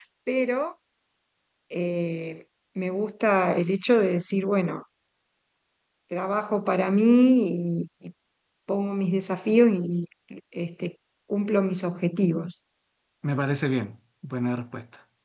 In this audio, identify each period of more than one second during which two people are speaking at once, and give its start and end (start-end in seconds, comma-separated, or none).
none